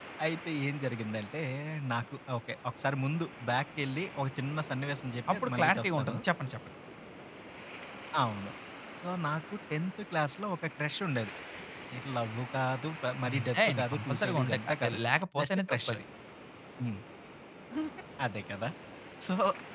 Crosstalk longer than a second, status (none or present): present